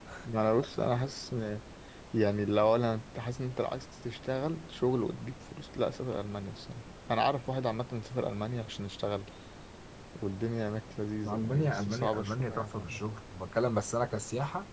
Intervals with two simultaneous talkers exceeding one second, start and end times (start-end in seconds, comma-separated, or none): 11.3-13.0